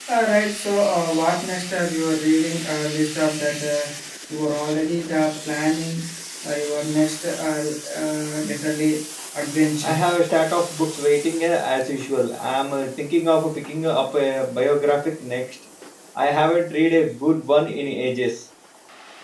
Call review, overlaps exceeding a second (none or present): none